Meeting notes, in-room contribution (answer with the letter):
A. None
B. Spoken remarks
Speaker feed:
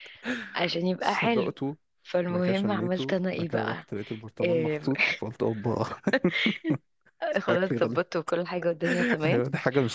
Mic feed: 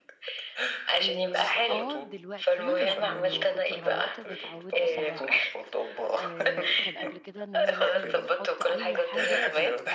B